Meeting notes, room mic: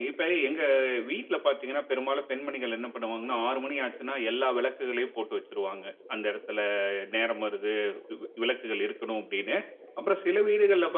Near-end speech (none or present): none